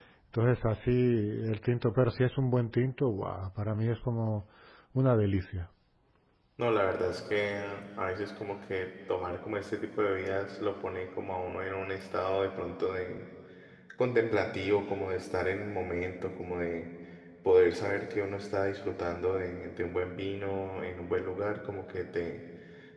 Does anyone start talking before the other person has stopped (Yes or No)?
No